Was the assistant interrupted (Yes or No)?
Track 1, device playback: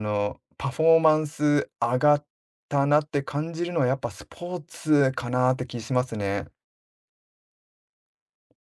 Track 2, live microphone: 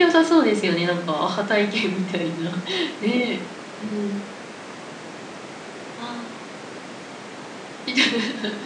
Yes